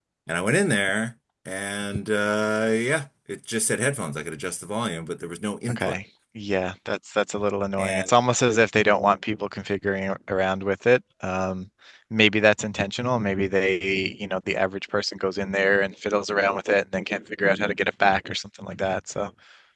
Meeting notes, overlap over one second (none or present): none